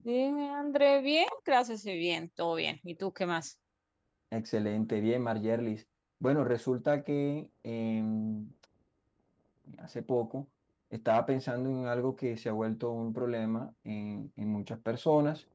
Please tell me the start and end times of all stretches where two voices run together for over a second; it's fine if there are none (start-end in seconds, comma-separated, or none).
none